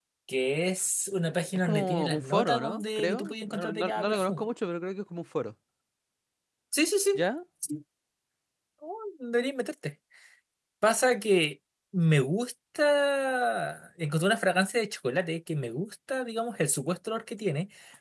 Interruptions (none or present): present